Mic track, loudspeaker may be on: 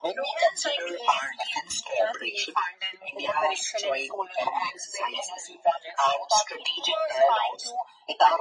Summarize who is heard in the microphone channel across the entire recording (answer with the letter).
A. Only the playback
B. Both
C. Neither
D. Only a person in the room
A